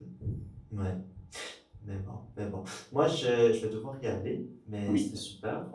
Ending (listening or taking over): listening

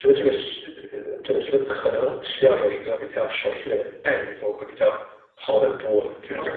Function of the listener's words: taking over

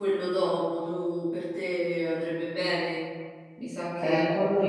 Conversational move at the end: taking over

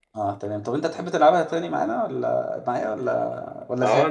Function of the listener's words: taking over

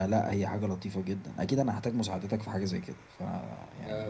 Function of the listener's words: taking over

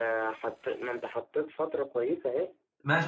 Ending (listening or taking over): taking over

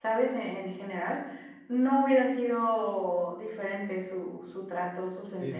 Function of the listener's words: taking over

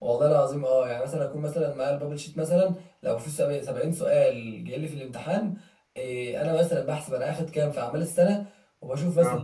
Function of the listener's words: listening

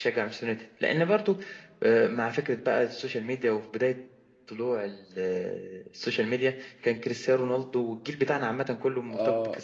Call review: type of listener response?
taking over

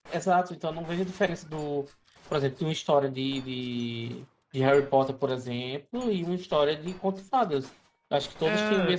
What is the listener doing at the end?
listening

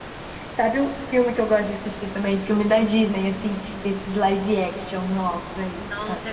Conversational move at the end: taking over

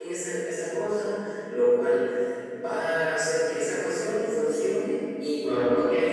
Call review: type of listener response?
listening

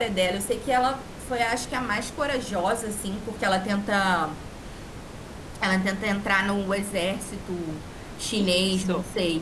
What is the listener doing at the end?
taking over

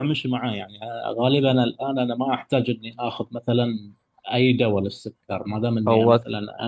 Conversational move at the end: listening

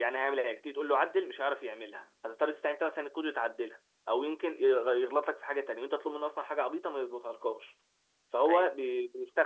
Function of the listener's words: listening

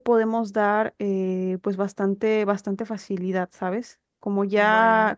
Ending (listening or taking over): listening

